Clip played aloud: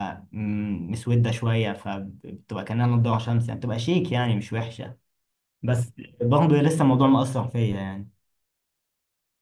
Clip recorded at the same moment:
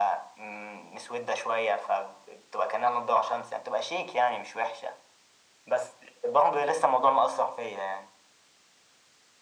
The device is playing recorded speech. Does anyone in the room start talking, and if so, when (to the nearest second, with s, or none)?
none